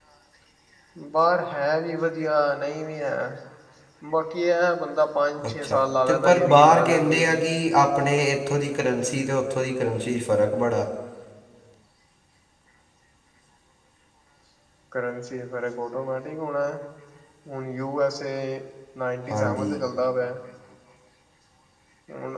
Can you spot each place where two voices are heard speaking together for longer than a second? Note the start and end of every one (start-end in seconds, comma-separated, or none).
5.5-7.5